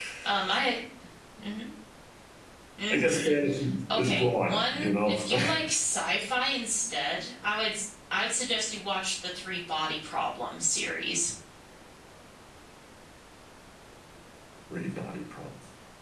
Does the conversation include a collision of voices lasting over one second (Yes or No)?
Yes